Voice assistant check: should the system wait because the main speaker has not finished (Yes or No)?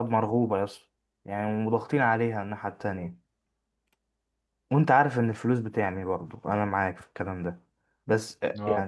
No